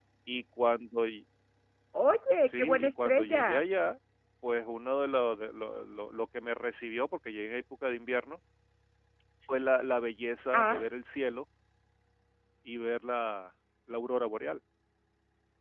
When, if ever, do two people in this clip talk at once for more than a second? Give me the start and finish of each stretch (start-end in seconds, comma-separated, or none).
2.4-3.6